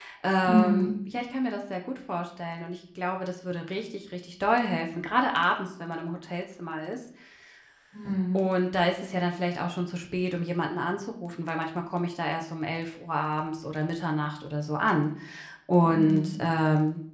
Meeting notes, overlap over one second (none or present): none